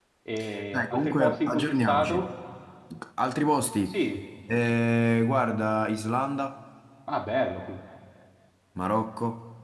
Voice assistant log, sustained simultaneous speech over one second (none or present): present